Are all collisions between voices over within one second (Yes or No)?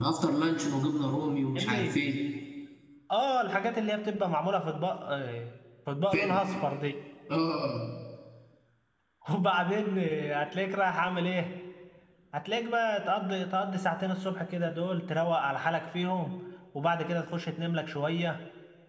Yes